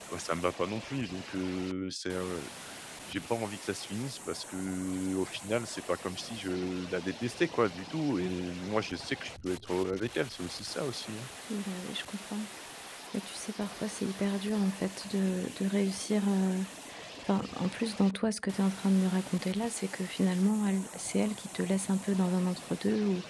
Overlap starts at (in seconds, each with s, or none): none